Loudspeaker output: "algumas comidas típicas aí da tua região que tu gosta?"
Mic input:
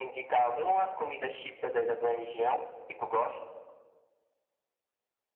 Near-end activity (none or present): none